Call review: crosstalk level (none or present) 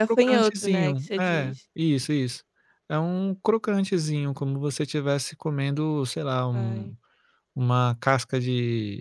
present